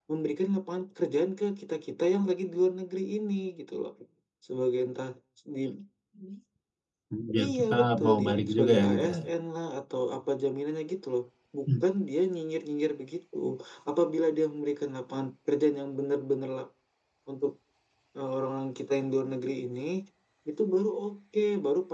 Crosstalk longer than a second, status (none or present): present